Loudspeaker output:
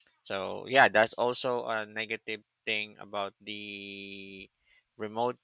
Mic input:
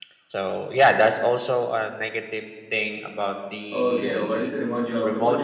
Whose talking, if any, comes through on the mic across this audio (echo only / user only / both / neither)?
both